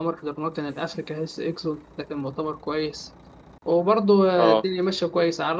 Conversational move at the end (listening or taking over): listening